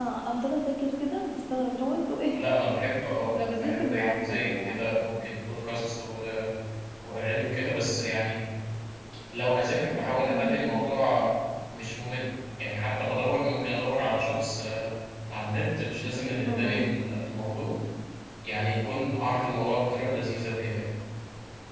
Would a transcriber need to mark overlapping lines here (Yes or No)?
Yes